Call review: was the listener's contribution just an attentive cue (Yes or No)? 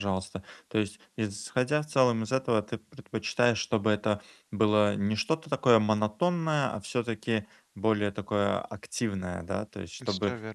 Yes